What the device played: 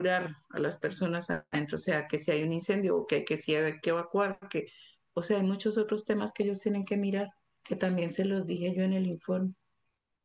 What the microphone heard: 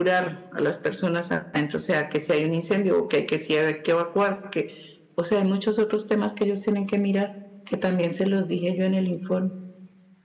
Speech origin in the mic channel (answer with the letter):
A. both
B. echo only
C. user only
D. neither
B